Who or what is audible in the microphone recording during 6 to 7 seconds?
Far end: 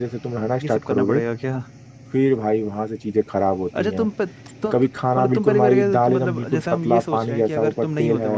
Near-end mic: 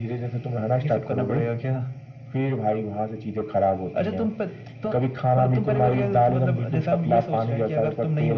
echo only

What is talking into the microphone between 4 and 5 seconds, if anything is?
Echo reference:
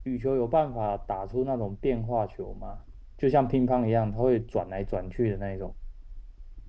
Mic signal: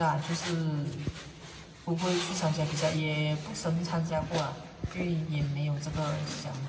user only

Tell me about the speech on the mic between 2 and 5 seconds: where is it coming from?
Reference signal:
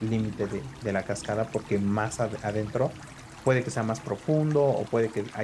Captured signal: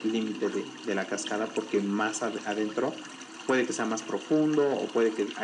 echo only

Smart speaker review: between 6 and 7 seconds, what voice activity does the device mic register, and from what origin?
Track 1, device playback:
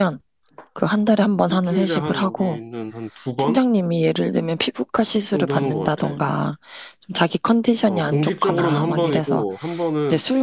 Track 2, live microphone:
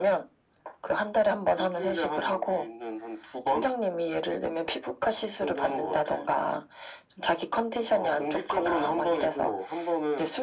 echo only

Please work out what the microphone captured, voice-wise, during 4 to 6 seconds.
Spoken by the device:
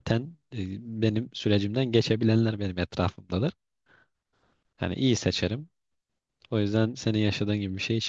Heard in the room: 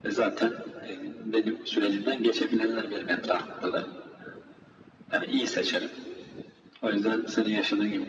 echo only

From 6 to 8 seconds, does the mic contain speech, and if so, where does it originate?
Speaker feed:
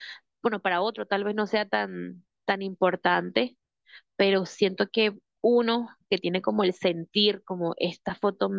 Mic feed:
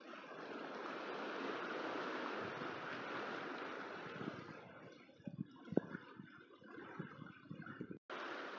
neither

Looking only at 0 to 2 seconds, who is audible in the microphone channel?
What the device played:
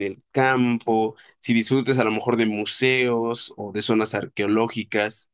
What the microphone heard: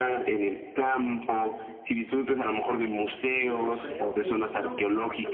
echo only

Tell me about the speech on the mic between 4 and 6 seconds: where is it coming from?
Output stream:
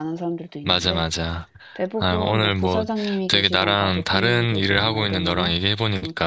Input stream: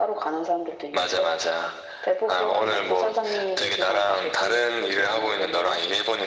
echo only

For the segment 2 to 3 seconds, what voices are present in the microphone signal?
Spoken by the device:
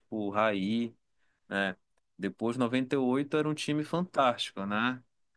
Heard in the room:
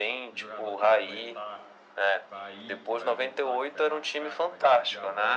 both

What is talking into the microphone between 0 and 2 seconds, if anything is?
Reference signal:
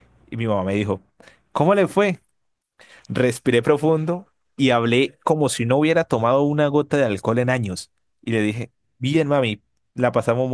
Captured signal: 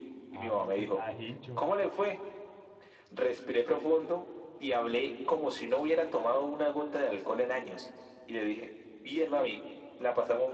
both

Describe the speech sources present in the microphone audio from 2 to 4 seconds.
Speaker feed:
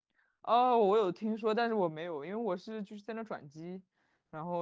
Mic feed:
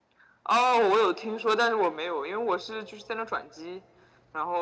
echo only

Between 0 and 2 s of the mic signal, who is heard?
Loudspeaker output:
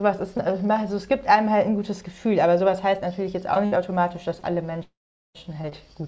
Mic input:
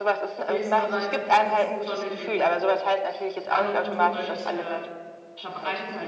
both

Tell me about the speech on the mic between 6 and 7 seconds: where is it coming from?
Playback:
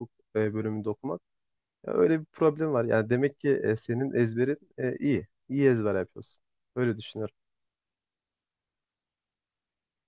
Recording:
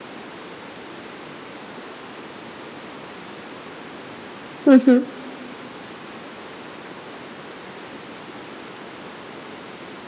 neither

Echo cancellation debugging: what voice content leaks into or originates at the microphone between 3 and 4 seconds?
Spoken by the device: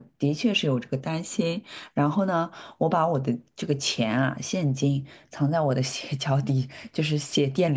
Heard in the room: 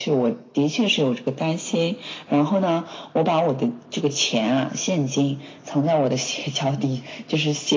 echo only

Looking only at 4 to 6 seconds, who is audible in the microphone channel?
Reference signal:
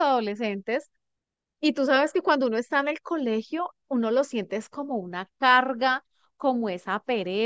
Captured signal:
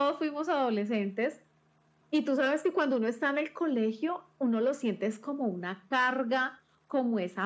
echo only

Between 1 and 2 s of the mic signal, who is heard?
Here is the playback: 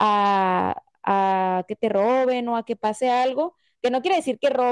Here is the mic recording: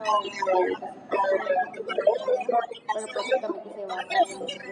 both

